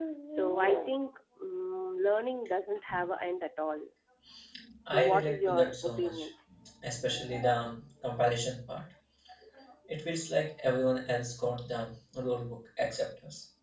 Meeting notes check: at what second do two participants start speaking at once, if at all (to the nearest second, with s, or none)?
5 s